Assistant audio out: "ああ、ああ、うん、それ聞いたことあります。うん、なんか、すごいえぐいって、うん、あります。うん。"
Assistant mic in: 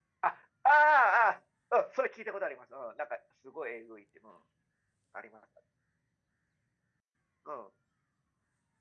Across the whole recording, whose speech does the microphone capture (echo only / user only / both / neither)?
echo only